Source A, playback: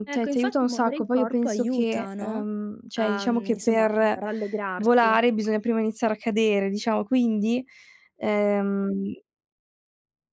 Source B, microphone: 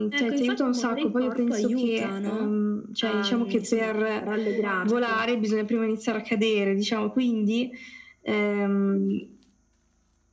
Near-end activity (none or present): present